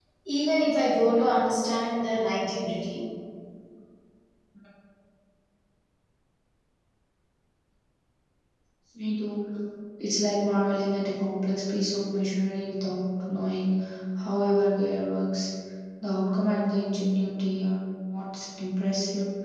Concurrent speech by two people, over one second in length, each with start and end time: none

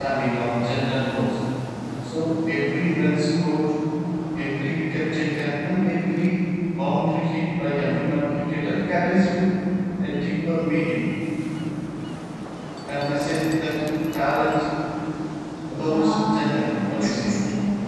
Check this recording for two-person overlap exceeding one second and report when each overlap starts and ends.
15.8-17.4

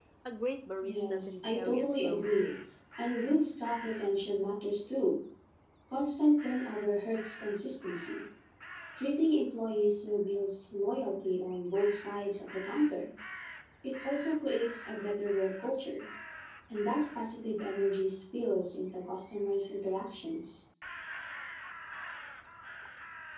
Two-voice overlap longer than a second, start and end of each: 0.8-2.5

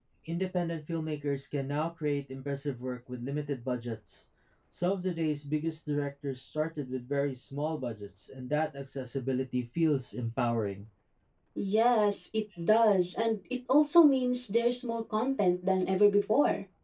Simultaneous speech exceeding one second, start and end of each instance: none

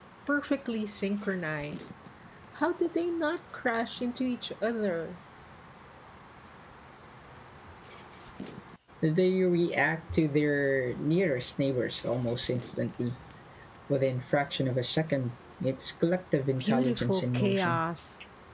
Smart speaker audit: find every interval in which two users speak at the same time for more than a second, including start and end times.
16.6-17.8

